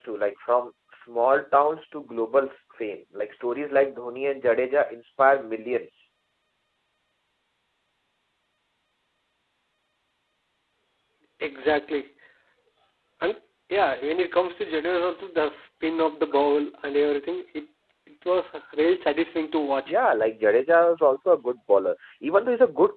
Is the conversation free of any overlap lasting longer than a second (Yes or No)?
Yes